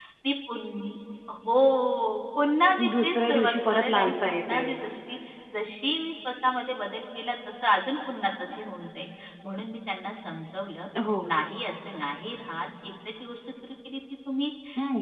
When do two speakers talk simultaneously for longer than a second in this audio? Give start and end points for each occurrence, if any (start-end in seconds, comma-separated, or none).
3.0-4.6